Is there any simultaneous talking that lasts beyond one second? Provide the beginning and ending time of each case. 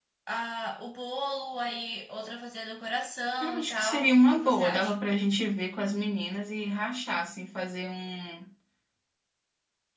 3.4-5.0

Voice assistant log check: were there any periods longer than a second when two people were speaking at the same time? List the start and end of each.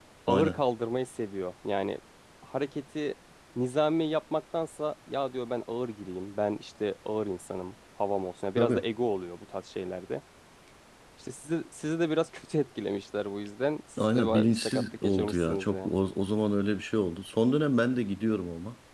14.0-15.9

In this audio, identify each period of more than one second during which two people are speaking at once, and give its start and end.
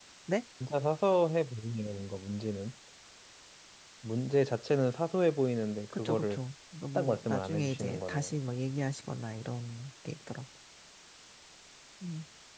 7.0-8.3

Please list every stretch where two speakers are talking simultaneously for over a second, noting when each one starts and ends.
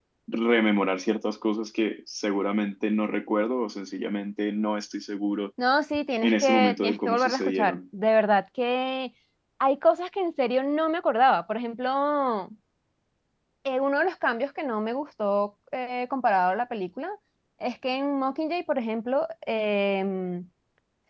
6.2-7.8

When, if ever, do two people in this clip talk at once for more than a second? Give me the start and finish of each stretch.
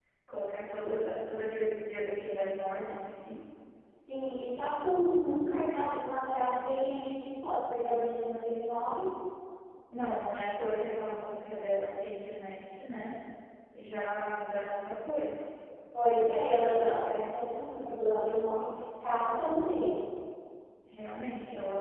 none

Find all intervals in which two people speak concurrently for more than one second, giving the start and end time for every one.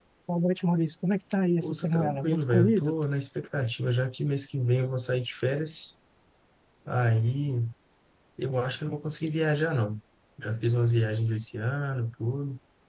1.6-2.9

